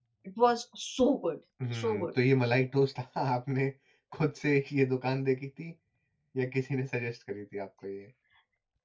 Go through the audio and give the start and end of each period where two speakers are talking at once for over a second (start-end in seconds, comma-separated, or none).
none